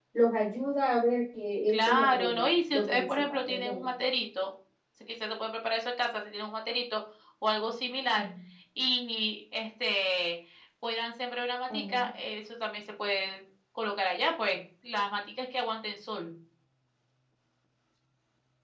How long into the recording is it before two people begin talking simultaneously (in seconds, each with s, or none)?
1.7 s